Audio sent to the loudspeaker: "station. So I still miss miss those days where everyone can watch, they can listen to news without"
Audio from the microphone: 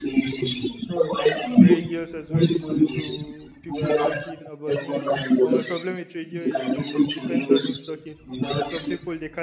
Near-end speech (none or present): present